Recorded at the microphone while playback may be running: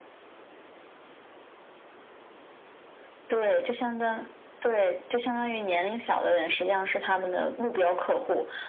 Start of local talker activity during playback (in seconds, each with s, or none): none